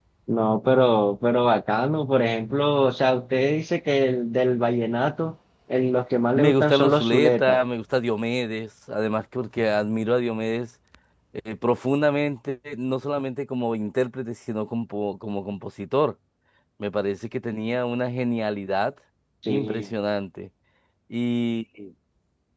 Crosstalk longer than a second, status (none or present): present